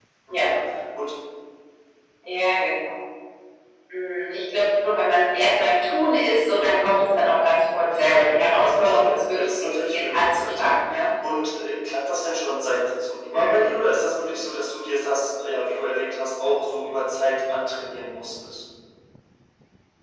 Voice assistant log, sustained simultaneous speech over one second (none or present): present